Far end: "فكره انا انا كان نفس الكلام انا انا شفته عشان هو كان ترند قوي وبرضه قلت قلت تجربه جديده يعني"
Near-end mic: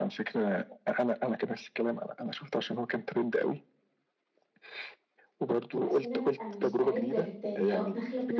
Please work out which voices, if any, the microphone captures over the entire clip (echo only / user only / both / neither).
both